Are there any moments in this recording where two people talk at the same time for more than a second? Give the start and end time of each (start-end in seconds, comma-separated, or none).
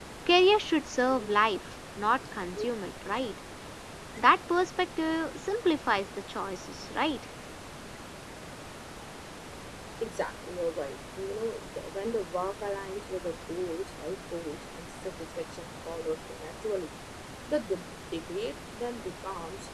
none